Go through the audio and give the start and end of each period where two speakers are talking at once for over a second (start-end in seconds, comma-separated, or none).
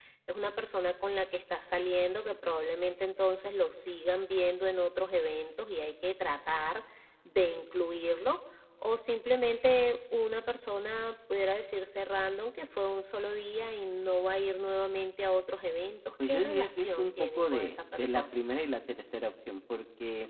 16.3-18.2